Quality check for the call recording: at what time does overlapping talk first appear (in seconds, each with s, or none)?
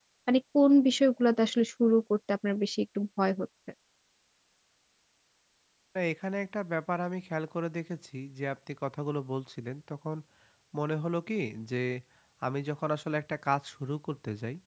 none